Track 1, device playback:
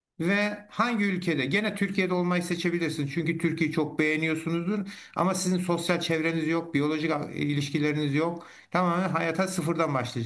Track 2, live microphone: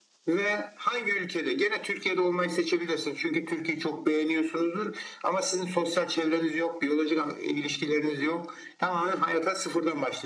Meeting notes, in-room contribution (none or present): none